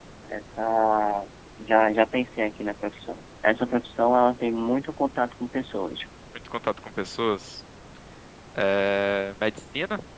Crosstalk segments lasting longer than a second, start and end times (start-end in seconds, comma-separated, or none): none